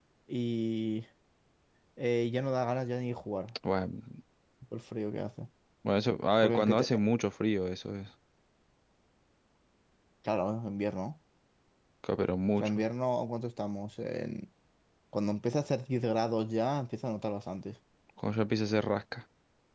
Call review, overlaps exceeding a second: none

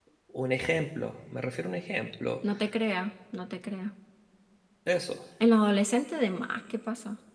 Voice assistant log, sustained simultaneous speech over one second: none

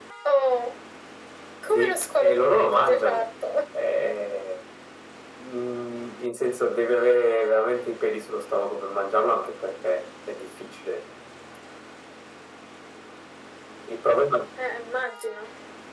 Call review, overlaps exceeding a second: present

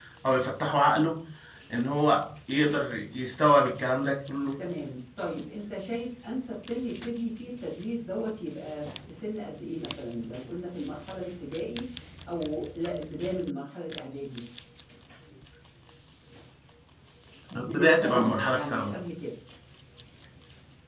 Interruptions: present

